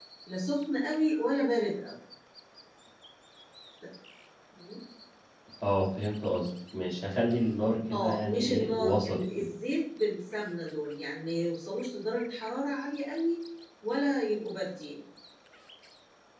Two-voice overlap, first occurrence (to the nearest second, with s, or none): 8 s